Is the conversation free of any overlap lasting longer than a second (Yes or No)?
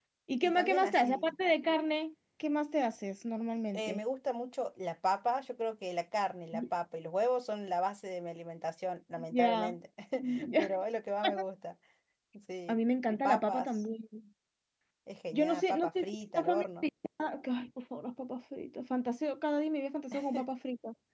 No